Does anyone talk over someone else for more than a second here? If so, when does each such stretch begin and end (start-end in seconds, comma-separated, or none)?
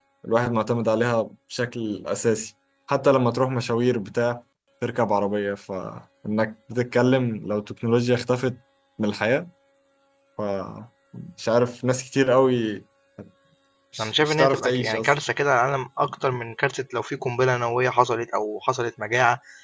14.0-15.2